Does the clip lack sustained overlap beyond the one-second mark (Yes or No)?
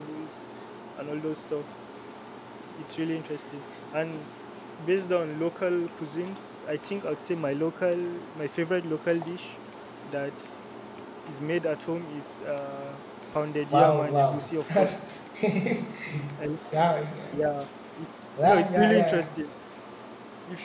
No